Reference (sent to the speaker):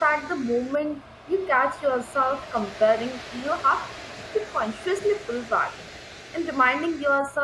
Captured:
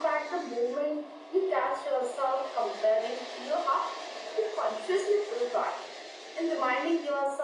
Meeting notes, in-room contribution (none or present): none